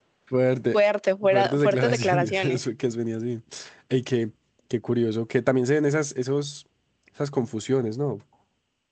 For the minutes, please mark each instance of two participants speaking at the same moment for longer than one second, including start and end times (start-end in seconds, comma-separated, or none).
1.2-2.6